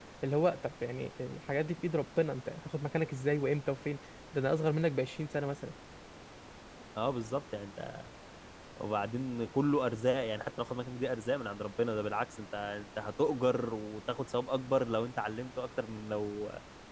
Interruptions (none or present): none